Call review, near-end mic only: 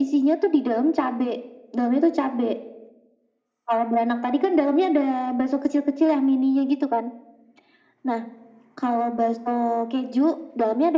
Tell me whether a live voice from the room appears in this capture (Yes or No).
No